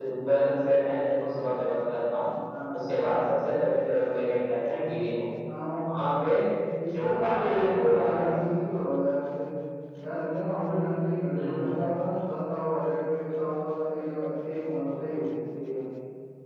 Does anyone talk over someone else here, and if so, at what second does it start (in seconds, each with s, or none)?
7.0 s